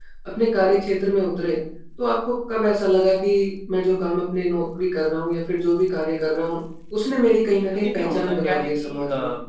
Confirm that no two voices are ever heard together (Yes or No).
No